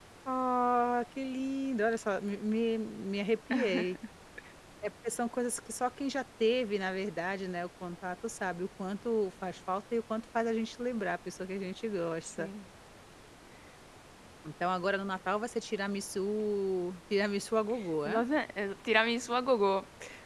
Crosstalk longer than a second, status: none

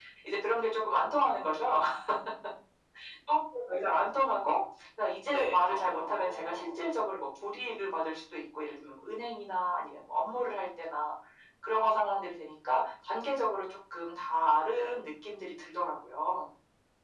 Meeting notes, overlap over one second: present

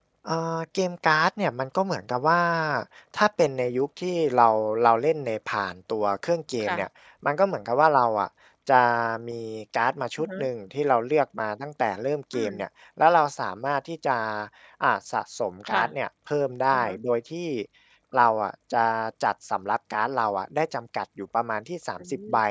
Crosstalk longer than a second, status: none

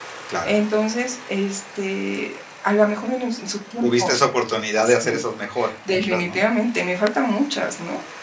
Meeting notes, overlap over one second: none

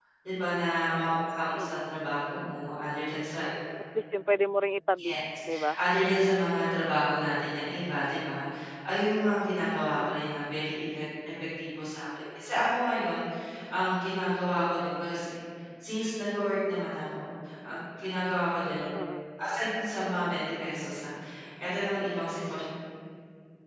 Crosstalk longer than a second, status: none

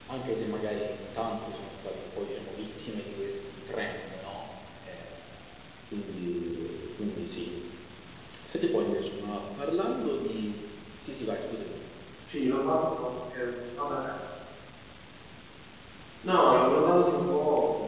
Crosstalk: none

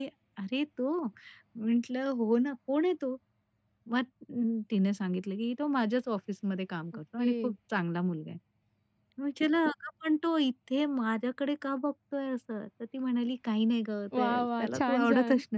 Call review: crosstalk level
present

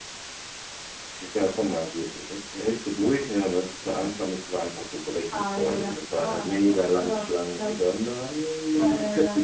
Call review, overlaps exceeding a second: present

